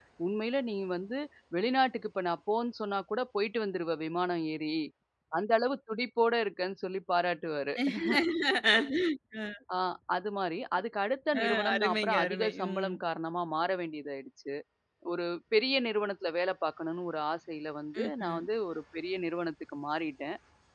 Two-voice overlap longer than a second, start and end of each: 11.4-12.9

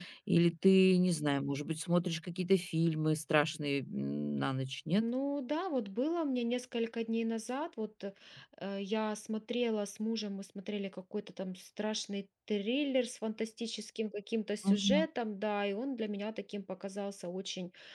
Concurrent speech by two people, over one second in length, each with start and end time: none

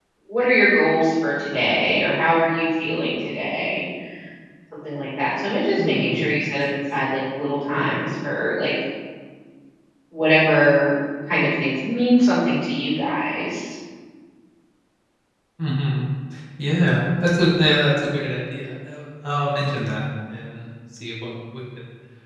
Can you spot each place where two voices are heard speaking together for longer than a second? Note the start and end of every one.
none

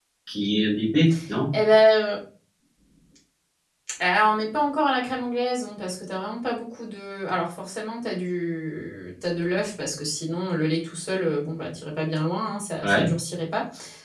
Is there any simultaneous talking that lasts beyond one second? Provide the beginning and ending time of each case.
none

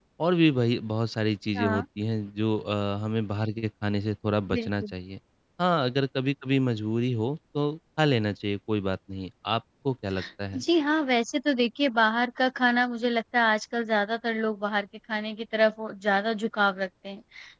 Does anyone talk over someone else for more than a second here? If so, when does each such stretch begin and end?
none

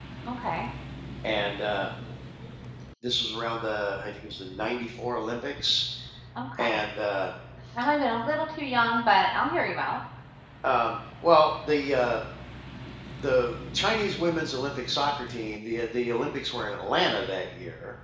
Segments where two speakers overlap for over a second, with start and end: none

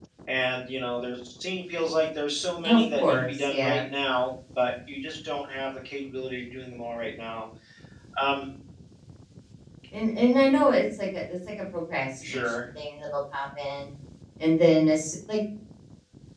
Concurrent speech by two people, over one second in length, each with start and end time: 2.6-3.9

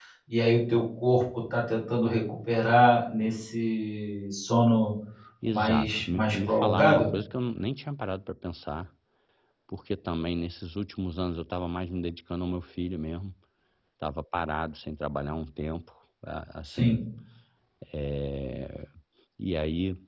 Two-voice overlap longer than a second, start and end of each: 5.5-7.1

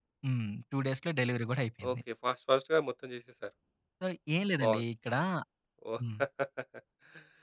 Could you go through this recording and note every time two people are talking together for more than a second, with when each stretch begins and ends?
none

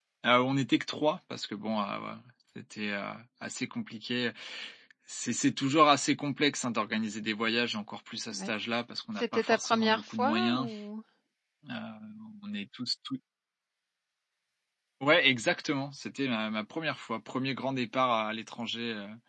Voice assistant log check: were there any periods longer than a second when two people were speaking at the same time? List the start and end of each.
9.2-10.7

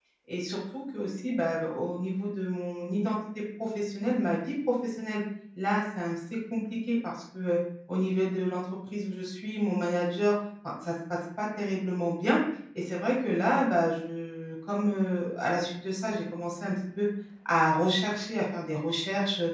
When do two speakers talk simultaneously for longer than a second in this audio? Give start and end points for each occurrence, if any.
none

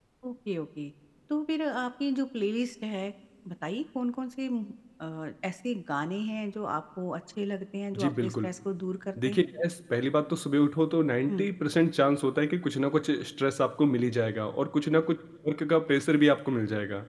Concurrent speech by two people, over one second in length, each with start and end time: none

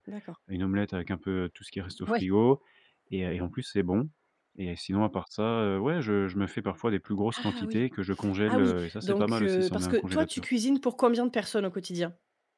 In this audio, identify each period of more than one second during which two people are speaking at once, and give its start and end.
8.5-10.4

